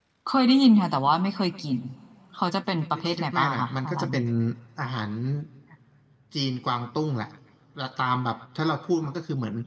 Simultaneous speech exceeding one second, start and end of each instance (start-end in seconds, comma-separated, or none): 2.9-4.2